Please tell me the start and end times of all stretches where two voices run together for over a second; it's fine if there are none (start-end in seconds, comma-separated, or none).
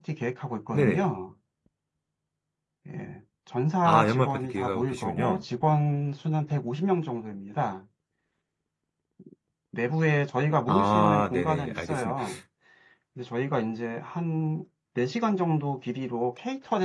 3.9-5.4, 10.7-12.2